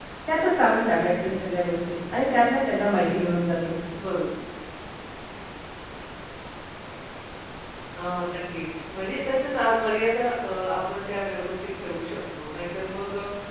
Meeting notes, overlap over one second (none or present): none